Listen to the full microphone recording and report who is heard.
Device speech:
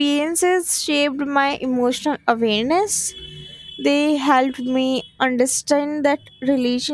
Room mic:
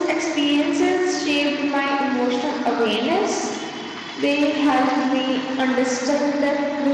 echo only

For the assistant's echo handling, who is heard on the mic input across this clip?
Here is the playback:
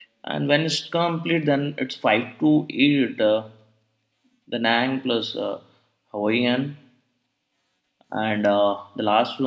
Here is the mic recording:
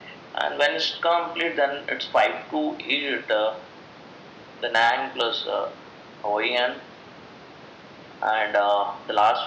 echo only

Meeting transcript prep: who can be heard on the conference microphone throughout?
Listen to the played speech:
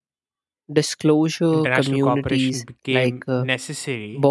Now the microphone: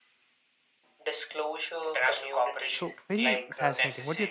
both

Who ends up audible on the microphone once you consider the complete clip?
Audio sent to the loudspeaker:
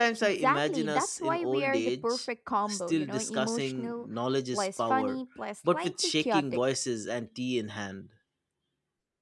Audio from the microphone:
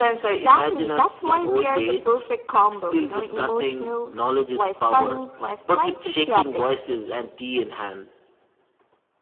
echo only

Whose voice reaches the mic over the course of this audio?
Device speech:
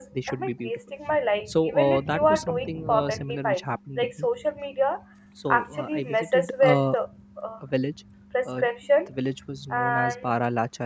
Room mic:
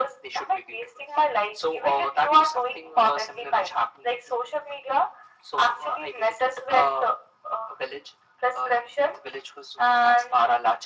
echo only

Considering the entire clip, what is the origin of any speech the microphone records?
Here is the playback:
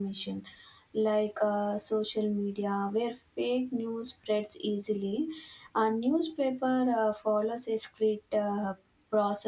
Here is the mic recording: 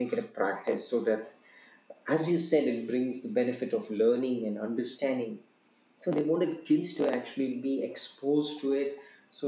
user only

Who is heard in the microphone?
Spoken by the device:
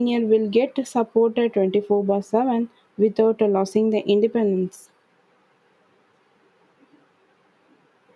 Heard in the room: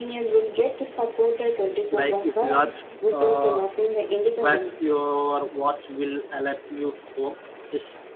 both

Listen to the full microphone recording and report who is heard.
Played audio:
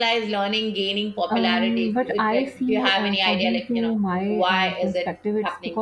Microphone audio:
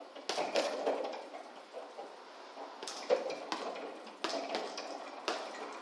neither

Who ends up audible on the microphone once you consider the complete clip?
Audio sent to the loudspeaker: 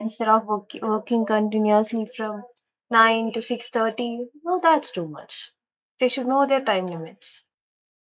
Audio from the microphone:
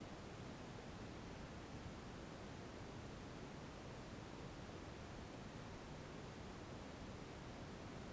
neither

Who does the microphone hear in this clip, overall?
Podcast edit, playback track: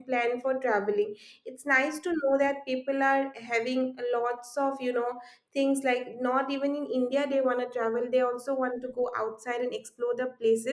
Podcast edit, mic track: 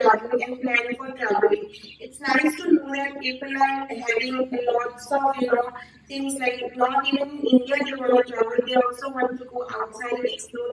echo only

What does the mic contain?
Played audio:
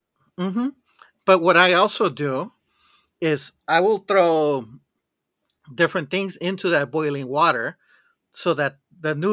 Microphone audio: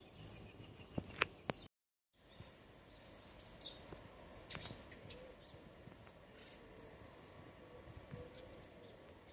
neither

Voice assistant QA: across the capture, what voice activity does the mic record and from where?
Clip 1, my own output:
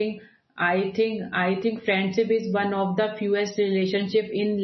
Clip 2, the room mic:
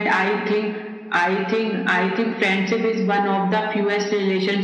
echo only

